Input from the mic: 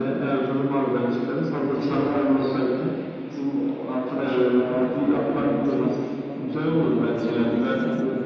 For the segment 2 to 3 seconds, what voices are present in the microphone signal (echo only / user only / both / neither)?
echo only